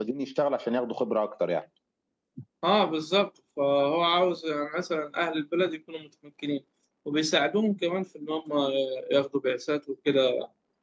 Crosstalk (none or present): none